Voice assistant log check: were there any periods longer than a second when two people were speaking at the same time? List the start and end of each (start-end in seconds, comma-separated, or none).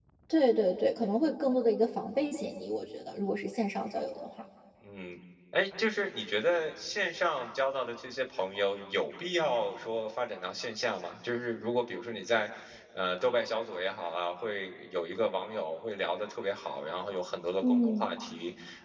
none